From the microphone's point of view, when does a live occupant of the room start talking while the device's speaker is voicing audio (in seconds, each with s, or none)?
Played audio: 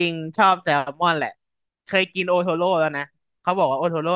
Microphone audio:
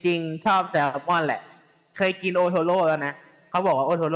none